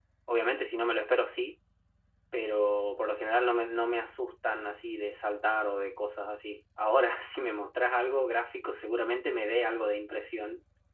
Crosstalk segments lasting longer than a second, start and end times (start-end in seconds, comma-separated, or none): none